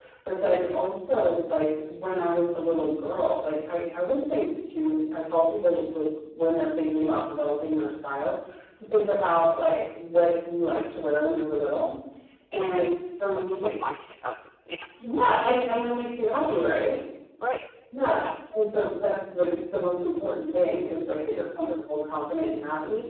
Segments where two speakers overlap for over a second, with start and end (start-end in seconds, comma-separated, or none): none